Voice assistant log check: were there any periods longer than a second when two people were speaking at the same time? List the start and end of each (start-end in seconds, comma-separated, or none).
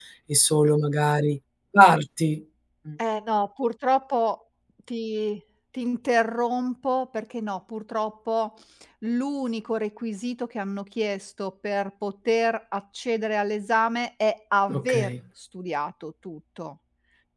none